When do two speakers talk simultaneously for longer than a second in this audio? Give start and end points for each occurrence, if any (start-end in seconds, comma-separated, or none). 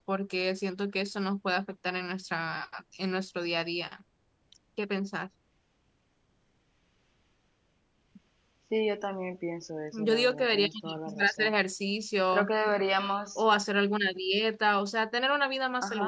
9.9-11.5